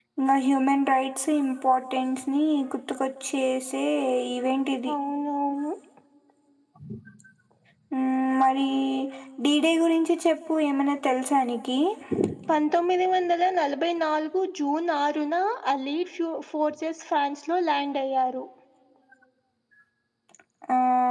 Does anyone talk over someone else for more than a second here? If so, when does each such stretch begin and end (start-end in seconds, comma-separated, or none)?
none